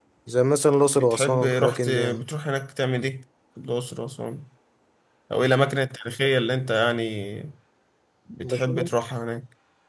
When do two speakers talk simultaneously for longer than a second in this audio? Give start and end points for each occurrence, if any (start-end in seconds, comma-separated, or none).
1.0-2.2